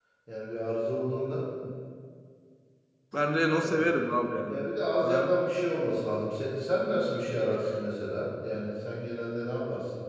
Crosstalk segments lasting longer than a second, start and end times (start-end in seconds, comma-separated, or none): none